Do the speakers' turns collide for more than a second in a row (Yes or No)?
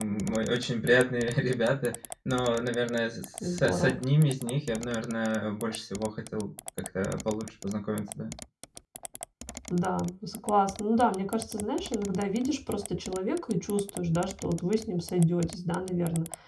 No